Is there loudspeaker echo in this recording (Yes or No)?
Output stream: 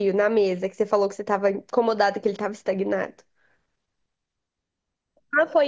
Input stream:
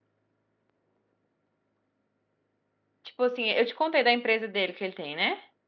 No